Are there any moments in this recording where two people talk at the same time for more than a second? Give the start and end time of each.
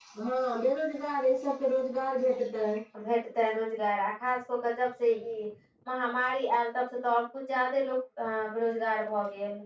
none

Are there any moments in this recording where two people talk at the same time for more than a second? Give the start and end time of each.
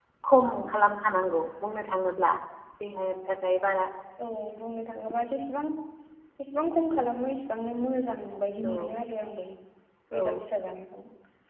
none

